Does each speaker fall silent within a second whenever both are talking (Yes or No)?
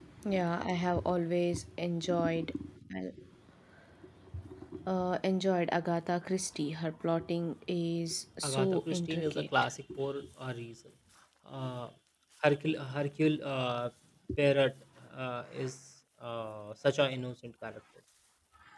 No